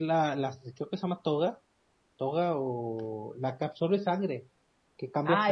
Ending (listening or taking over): taking over